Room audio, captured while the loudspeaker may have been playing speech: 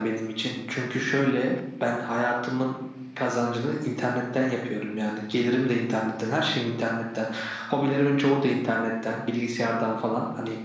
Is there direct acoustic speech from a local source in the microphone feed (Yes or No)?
No